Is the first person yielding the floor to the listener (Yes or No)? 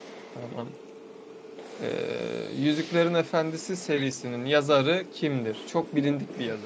Yes